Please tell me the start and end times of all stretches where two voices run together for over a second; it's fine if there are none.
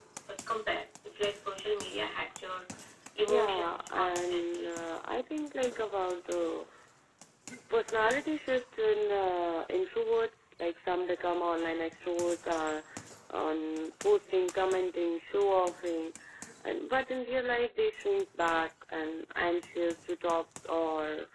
3.3-4.7

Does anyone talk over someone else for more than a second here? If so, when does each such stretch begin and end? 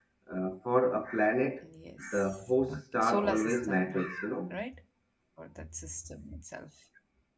2.1-4.1

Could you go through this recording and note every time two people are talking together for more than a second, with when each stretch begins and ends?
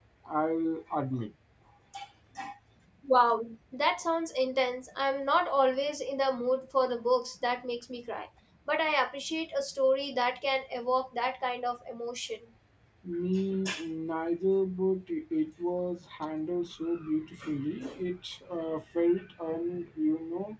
none

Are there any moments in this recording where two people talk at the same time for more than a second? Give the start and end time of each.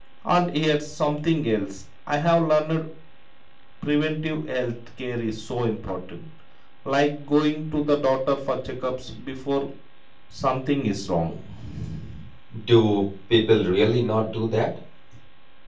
none

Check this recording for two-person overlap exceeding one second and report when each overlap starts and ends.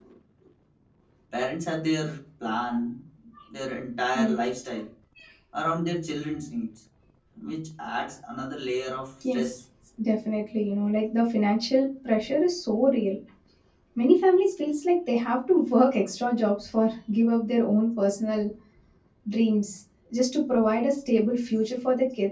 none

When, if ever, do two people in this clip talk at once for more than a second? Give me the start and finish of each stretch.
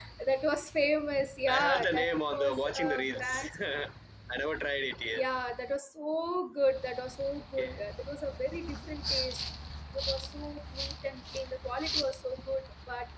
1.5-3.5

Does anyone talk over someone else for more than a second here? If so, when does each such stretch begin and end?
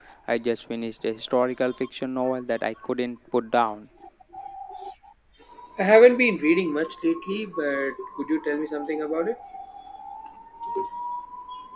none

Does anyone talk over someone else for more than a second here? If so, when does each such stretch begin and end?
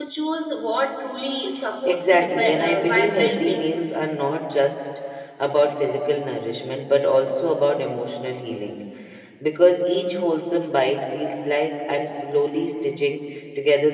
1.9-3.7

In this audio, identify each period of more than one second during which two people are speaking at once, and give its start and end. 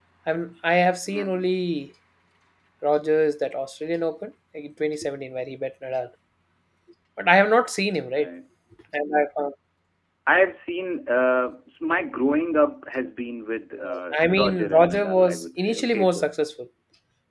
13.7-16.3

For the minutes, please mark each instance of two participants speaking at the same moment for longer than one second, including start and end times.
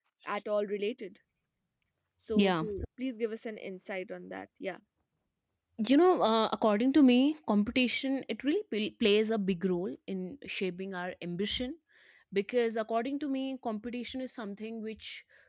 none

